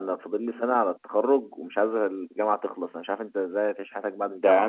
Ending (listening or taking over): taking over